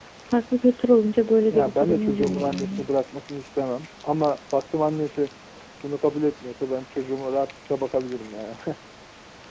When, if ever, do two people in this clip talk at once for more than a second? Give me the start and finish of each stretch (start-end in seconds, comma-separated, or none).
1.5-2.9